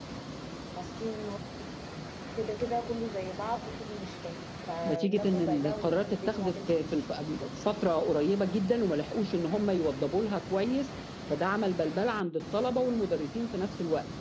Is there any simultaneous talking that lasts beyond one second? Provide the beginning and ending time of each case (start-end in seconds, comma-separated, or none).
4.9-7.0